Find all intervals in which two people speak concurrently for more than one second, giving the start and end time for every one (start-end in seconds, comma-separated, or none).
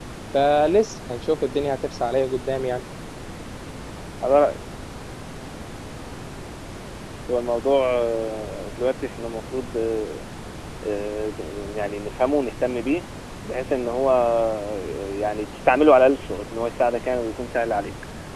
none